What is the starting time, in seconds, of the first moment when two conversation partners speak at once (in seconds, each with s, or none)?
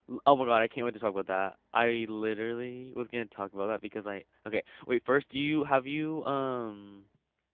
none